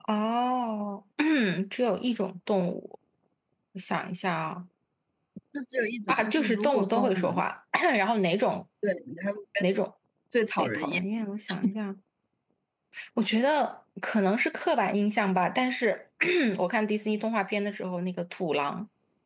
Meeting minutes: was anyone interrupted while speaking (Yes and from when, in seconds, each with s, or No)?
Yes, from 6.1 s